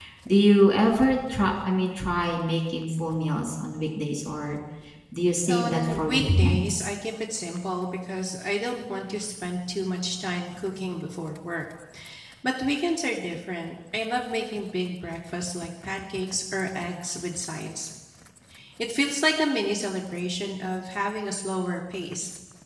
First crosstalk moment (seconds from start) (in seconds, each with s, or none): 5.5 s